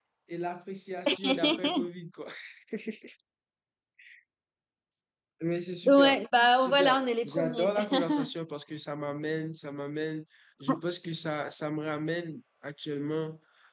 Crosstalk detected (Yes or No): Yes